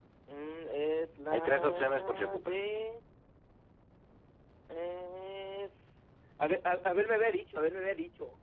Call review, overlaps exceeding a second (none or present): present